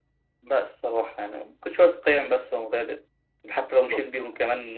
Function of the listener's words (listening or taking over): listening